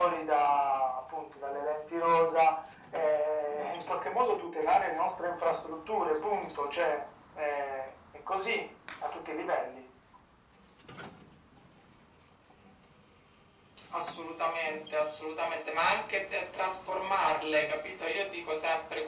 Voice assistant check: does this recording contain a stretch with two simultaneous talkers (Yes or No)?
No